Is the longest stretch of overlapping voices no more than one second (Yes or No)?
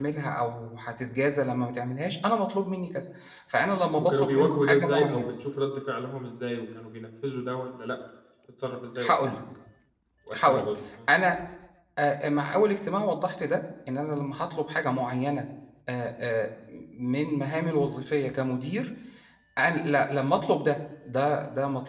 No